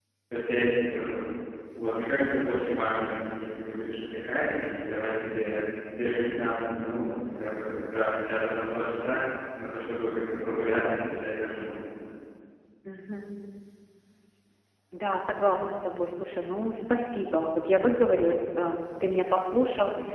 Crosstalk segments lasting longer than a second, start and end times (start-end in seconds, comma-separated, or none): none